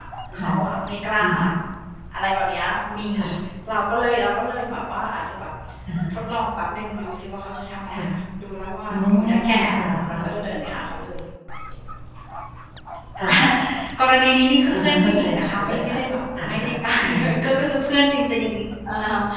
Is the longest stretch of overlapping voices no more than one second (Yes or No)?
No